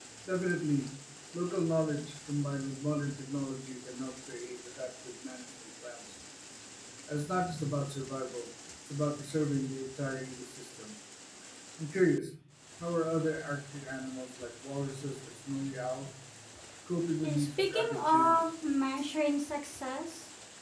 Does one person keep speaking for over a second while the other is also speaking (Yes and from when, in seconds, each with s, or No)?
Yes, from 17.2 s